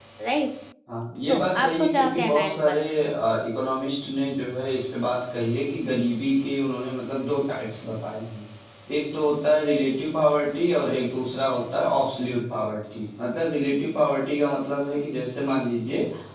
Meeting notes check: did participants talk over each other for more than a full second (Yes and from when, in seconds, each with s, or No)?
Yes, from 1.3 s